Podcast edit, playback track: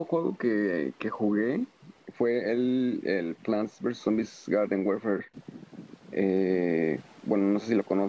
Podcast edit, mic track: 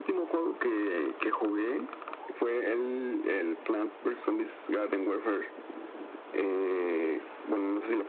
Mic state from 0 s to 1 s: echo only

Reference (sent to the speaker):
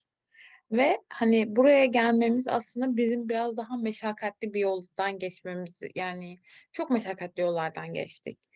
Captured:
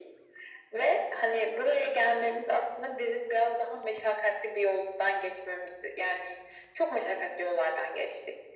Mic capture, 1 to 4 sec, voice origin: echo only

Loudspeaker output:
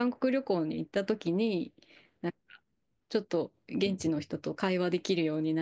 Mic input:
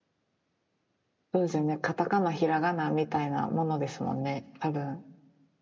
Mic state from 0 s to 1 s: neither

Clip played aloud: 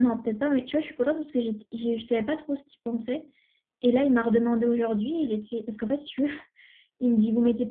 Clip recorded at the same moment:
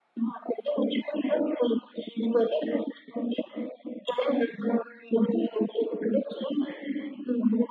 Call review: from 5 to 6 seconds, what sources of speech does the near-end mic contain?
echo only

